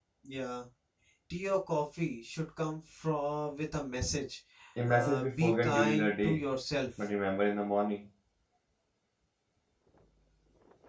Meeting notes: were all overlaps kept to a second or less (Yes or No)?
No